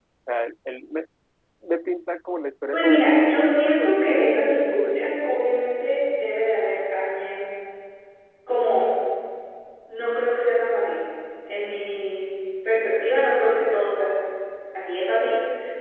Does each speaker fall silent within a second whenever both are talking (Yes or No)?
No